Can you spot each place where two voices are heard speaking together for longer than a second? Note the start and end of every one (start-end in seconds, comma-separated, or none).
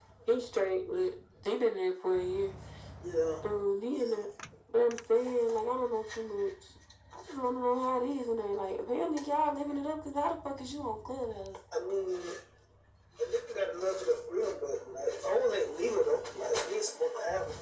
none